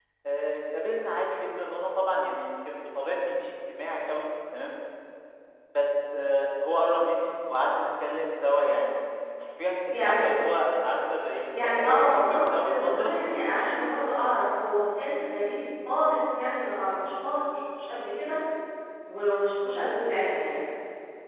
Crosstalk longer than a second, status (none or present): present